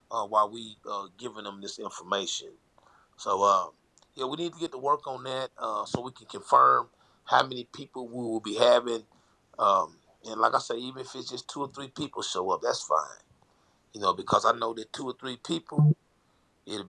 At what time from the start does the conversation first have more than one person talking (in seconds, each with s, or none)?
none